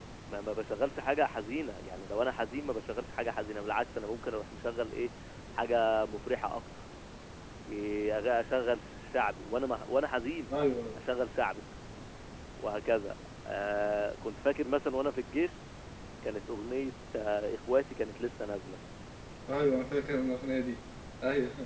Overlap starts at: none

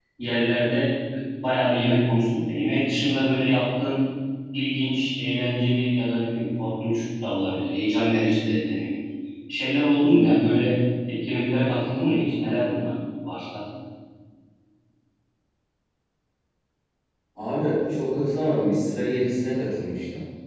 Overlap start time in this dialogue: none

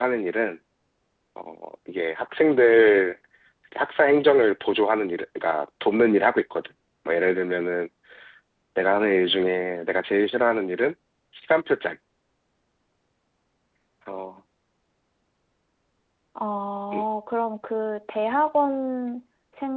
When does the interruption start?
none

